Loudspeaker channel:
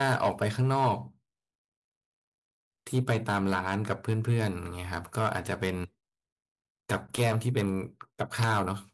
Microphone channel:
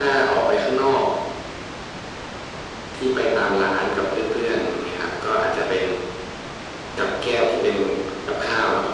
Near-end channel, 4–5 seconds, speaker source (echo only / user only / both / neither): echo only